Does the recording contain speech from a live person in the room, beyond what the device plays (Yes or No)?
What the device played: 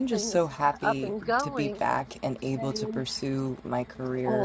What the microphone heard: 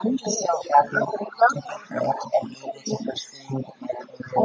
No